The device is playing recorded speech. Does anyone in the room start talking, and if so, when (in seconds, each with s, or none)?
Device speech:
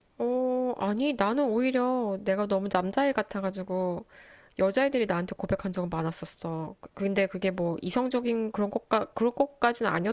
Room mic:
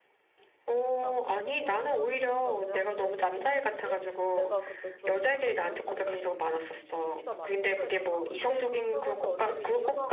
1.0 s